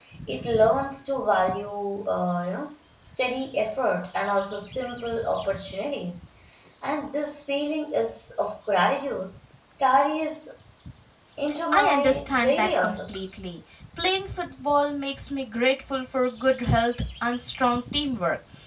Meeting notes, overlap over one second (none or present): present